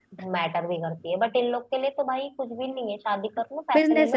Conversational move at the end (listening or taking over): taking over